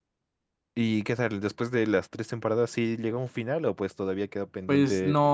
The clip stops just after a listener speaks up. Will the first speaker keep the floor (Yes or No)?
No